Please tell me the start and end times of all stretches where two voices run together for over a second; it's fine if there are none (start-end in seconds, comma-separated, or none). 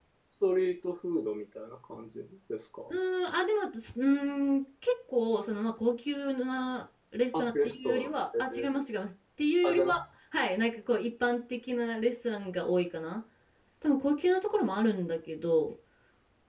7.4-8.7